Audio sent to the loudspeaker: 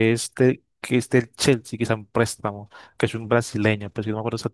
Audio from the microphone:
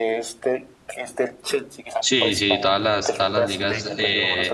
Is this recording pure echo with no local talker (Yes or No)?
No